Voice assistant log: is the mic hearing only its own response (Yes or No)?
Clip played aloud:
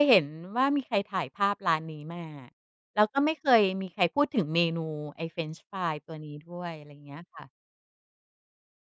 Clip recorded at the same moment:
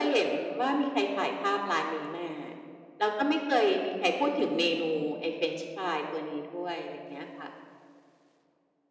Yes